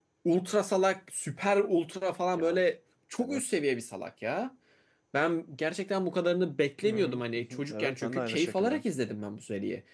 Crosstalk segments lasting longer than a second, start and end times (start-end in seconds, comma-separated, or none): 6.8-8.8